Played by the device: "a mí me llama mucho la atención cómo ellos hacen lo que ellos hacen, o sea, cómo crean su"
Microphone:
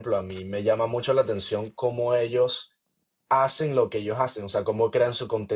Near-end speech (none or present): none